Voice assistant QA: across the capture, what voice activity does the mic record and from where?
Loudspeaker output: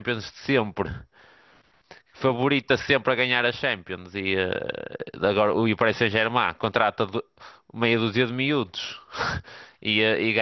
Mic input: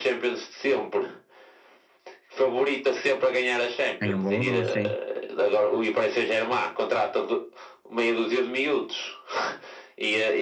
both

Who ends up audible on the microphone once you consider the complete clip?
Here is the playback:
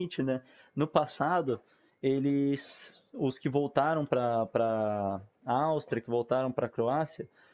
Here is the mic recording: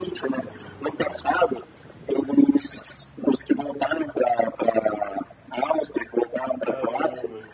both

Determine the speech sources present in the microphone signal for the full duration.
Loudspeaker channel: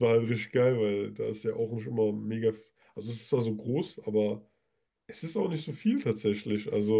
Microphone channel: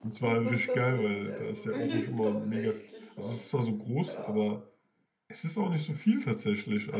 both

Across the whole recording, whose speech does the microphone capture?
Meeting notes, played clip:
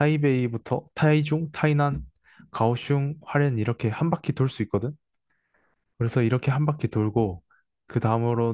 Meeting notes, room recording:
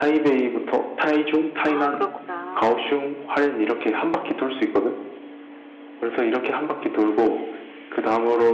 both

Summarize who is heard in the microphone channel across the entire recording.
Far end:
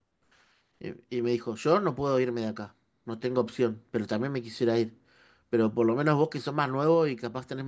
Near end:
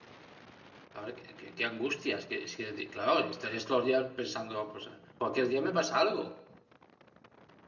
user only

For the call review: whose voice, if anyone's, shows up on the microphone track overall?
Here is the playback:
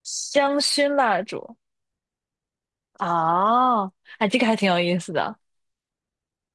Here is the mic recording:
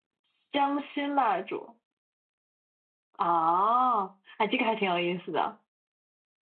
echo only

